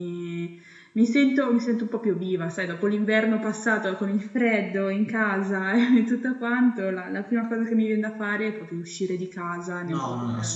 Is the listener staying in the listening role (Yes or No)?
No